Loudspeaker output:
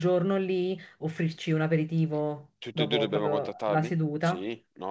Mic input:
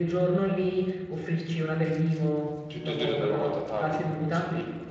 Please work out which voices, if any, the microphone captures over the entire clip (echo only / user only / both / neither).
echo only